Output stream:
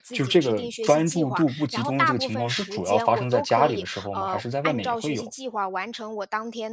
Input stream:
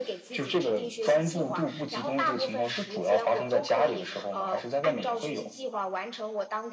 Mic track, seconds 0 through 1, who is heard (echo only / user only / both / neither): echo only